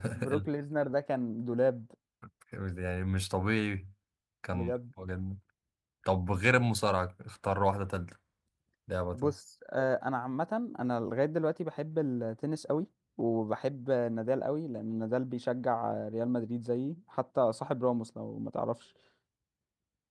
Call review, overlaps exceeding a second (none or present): none